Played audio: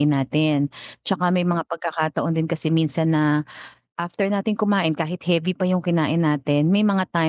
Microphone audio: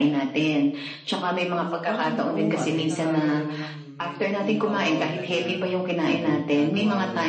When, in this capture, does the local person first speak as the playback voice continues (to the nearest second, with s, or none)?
2 s